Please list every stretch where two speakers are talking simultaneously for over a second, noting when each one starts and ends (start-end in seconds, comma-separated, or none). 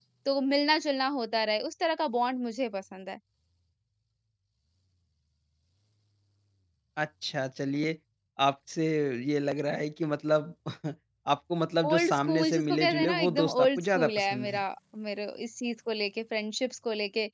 11.9-14.6